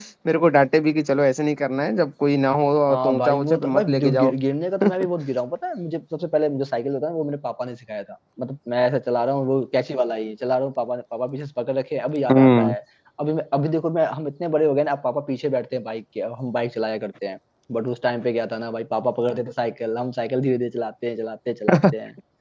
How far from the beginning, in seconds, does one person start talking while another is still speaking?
2.9 s

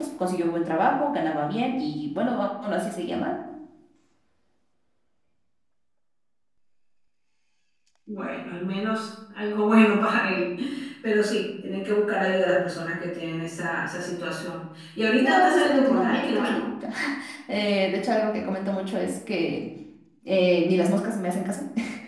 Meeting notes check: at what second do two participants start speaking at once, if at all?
15.2 s

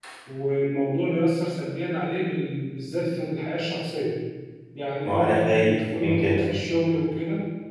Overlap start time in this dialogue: 5.0 s

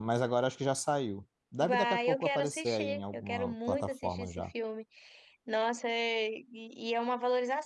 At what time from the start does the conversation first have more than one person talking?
1.6 s

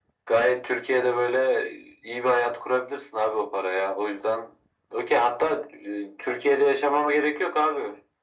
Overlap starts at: none

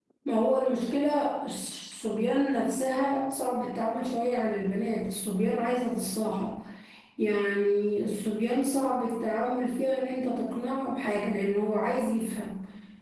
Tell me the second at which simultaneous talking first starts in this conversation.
none

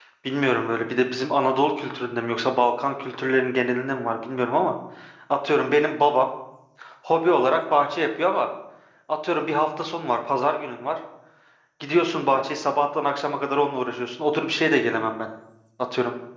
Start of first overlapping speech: none

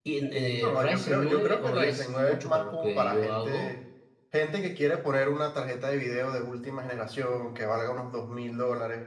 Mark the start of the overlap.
0.6 s

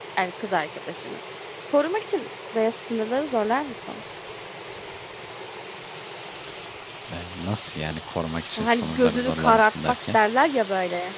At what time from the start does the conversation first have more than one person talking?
8.6 s

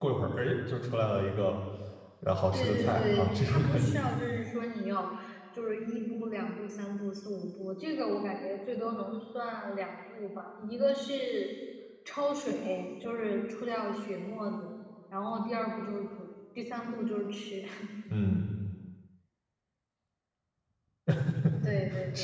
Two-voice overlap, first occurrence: 2.5 s

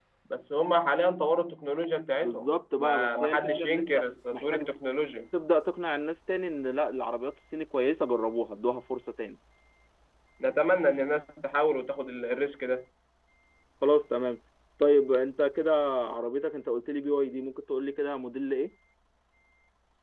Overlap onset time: 2.2 s

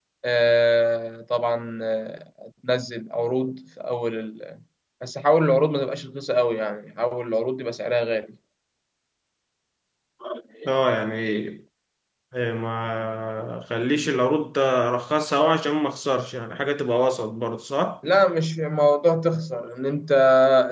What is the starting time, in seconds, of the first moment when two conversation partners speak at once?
none

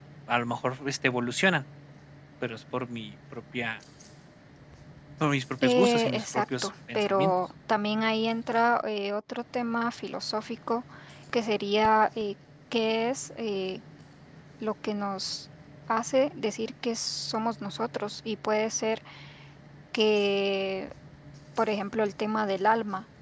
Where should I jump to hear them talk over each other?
5.6 s

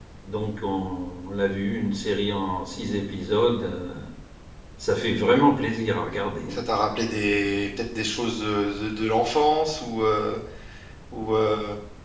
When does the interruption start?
none

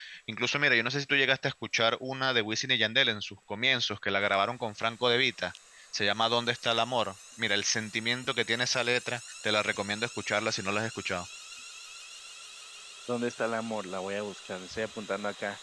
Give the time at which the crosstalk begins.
none

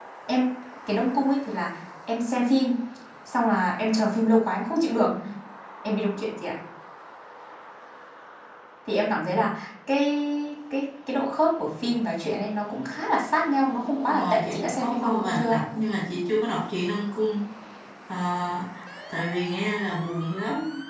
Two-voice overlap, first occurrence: 14.0 s

